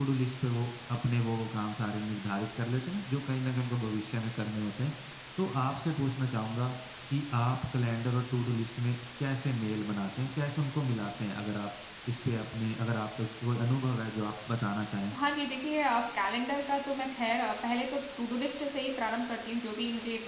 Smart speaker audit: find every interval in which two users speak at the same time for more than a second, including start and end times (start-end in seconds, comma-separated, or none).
none